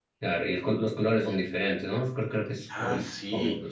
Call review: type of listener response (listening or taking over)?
taking over